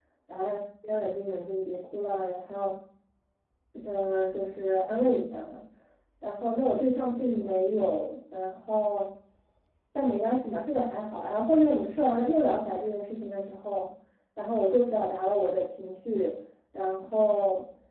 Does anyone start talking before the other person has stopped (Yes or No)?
No